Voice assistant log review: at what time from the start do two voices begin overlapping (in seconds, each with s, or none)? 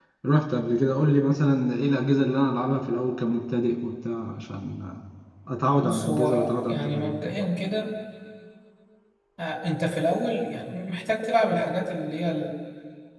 5.8 s